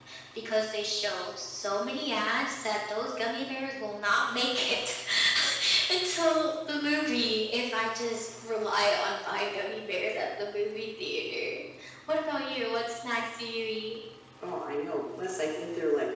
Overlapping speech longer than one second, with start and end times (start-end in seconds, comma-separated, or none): none